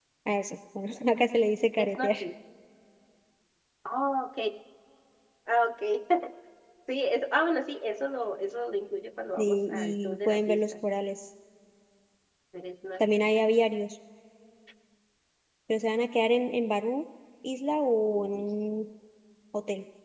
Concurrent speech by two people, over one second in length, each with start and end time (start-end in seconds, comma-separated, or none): 9.4-10.7